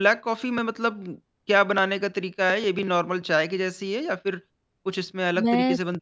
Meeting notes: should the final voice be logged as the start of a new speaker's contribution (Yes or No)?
Yes